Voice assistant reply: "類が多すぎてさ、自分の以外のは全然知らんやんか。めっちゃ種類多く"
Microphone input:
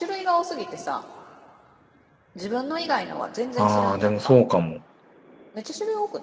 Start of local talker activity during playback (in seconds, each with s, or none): 3.5 s